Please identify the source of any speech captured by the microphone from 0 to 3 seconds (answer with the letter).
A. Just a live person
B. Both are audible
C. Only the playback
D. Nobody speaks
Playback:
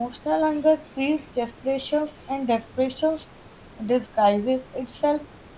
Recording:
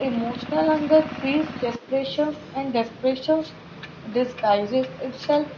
C